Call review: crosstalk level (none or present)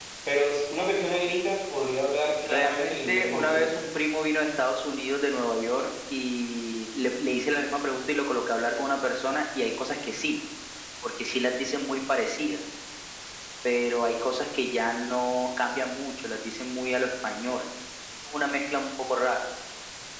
present